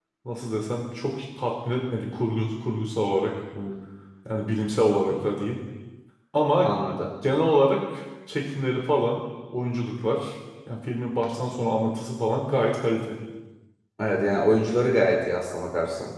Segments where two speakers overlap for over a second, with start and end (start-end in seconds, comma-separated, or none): none